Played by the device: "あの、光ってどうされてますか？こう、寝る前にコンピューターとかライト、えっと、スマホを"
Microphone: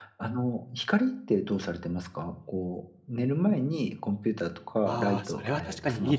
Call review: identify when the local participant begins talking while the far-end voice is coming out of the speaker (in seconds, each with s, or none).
4.9 s